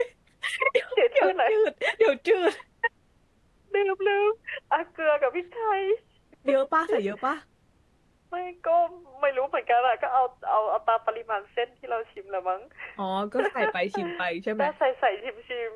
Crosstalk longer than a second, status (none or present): none